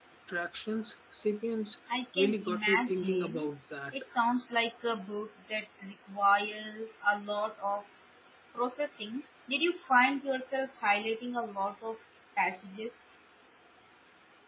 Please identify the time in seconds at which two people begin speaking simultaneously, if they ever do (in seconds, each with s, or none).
2.2 s